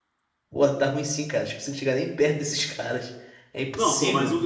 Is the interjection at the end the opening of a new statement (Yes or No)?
Yes